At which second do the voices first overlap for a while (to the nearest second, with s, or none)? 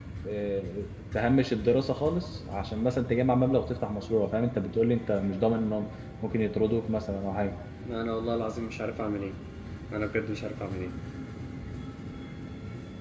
none